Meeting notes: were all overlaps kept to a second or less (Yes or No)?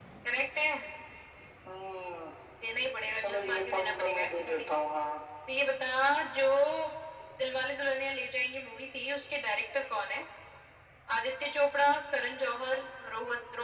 No